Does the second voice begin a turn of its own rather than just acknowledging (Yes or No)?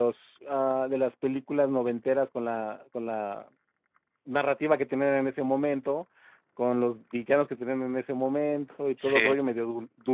No